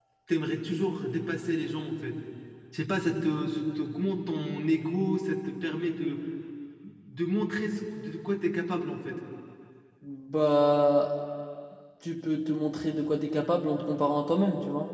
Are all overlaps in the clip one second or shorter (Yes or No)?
Yes